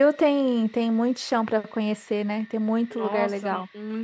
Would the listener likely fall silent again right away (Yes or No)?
No